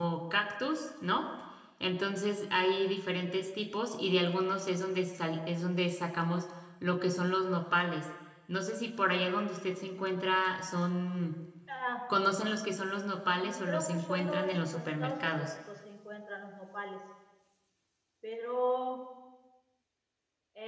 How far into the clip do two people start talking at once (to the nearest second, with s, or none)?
13 s